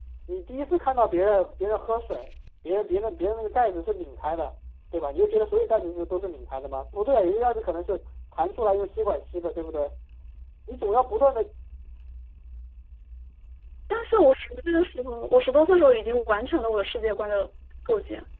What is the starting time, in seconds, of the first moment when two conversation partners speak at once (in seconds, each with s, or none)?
none